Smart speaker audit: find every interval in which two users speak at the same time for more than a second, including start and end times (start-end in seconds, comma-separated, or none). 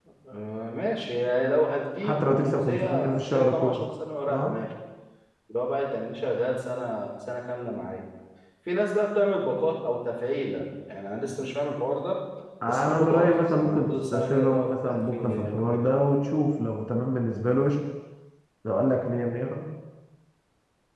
2.0-3.9, 12.7-15.8